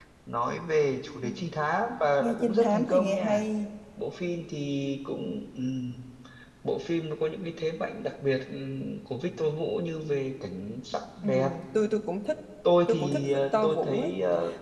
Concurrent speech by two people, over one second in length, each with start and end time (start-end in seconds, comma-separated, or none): 2.2-3.4, 12.9-14.1